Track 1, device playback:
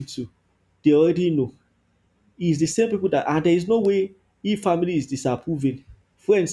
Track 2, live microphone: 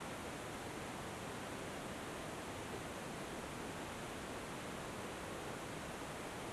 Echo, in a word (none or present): none